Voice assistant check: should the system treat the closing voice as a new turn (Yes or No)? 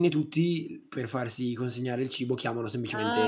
Yes